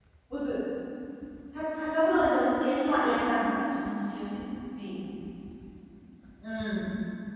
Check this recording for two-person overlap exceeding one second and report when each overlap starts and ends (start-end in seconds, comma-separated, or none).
2.1-3.4